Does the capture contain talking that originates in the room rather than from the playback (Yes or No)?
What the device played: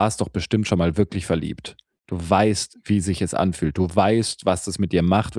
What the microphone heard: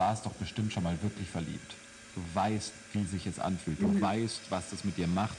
Yes